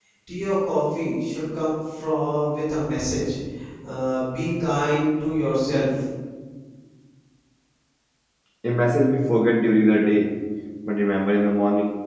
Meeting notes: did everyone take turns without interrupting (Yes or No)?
Yes